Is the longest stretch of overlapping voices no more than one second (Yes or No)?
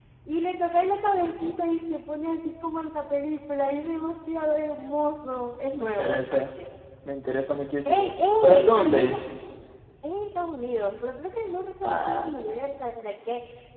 No